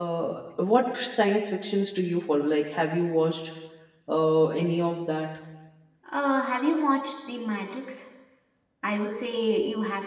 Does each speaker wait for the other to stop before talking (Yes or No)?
Yes